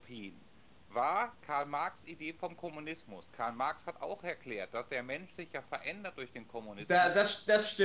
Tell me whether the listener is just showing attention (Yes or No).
No